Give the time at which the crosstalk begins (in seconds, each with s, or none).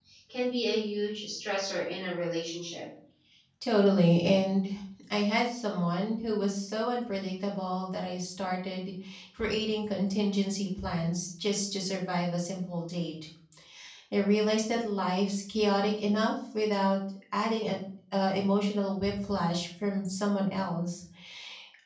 none